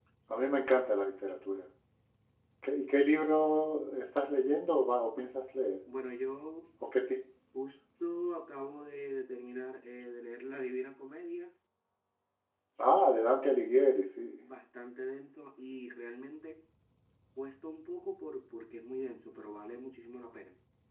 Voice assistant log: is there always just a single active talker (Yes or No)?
Yes